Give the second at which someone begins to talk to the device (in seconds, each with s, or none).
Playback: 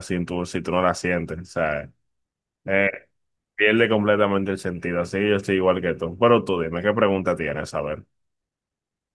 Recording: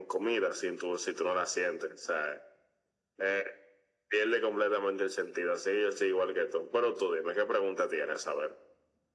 none